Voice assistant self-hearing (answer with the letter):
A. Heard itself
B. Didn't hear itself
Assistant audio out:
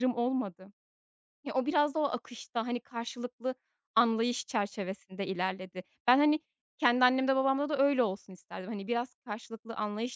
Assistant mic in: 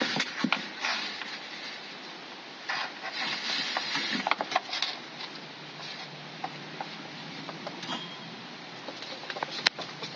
B